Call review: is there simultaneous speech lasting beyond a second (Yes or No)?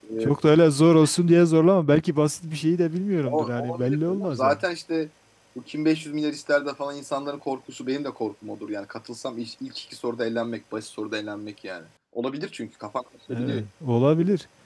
Yes